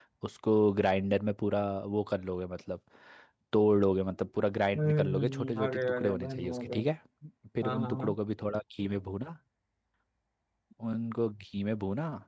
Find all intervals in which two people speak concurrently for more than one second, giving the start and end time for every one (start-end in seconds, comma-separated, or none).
4.8-6.8